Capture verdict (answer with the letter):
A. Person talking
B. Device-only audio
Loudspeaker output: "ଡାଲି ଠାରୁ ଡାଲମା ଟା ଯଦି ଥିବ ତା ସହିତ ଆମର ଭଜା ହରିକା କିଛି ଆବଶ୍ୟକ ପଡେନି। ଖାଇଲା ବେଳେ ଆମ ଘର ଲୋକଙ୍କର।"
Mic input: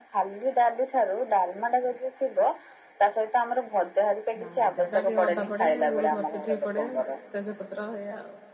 A